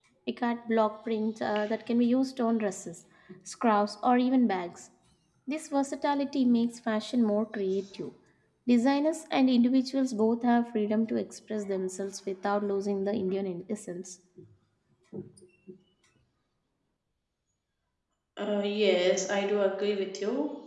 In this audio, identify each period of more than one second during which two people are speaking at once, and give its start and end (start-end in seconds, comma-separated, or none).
none